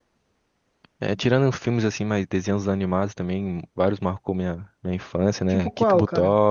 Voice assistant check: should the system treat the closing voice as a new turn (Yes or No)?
Yes